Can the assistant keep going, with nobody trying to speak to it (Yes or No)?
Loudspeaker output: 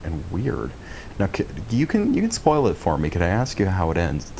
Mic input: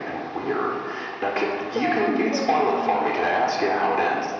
No